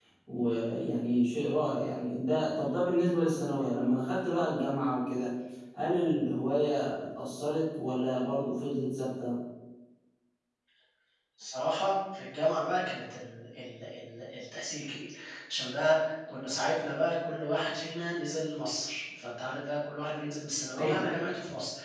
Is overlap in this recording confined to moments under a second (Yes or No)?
Yes